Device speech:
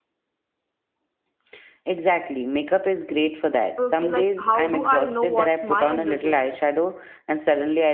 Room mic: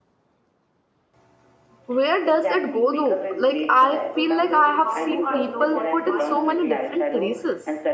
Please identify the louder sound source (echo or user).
user